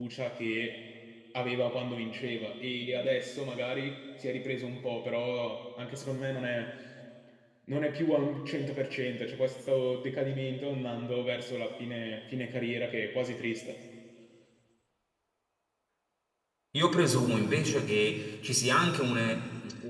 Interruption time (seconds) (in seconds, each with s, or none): none